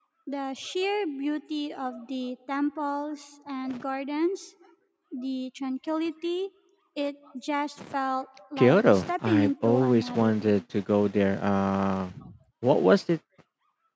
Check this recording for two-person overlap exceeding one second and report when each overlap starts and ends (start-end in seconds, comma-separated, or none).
8.6-10.6